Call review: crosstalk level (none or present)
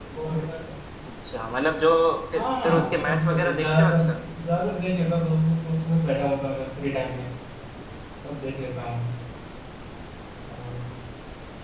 present